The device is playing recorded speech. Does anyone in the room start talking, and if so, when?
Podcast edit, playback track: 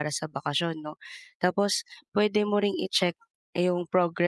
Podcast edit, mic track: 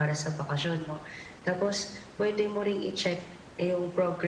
none

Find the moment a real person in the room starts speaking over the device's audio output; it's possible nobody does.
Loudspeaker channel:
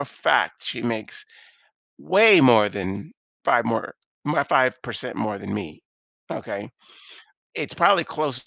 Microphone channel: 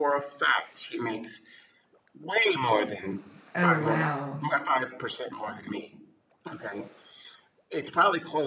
3.5 s

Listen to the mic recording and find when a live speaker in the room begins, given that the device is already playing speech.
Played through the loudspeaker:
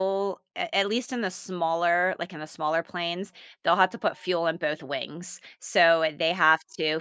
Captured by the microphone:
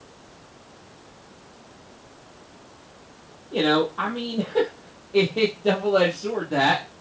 3.5 s

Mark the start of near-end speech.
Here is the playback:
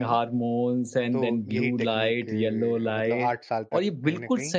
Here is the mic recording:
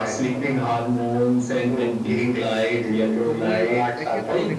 3.2 s

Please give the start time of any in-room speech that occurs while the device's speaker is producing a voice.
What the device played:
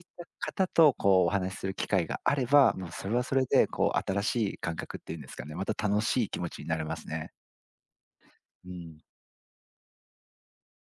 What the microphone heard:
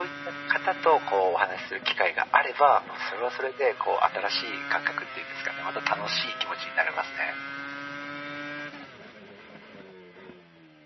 none

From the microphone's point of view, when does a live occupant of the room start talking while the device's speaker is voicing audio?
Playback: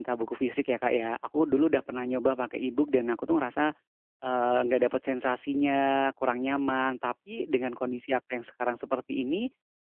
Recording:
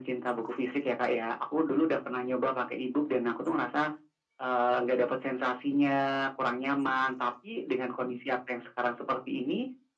none

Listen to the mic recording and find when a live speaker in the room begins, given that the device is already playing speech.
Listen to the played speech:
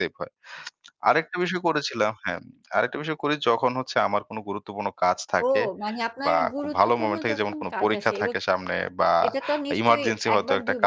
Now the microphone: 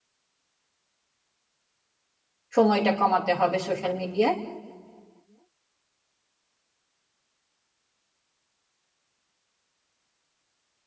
2.5 s

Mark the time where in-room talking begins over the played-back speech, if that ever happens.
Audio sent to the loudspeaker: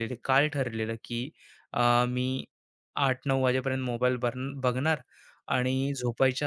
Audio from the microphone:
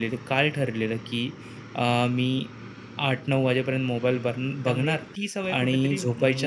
4.6 s

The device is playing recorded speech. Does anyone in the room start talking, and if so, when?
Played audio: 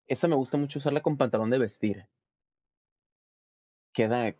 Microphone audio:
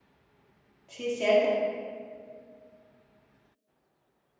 0.9 s

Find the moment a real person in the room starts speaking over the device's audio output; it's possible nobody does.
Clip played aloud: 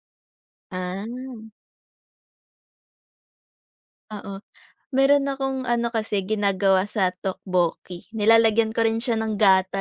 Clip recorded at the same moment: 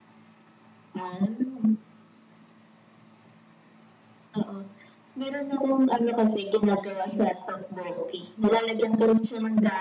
none

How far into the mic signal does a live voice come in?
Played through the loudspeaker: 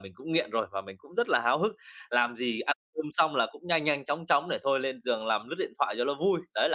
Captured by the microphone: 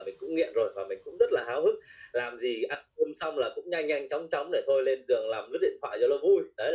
none

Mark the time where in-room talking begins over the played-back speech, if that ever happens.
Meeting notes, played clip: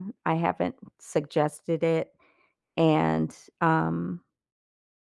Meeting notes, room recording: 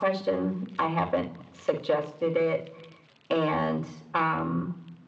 none

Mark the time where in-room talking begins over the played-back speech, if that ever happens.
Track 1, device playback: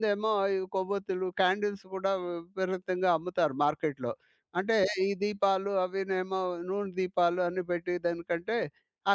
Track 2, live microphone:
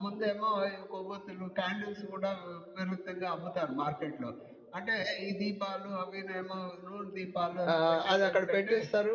7.7 s

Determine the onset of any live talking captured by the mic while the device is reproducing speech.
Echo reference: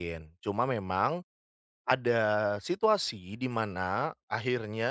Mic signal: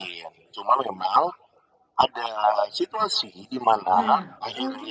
3.9 s

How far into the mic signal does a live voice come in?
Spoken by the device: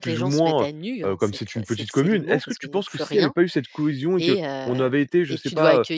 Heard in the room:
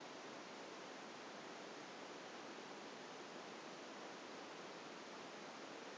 none

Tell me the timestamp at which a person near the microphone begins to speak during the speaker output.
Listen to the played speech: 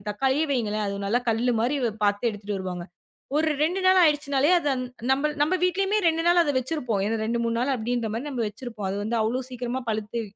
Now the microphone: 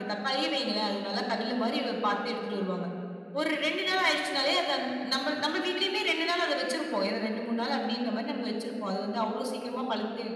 none

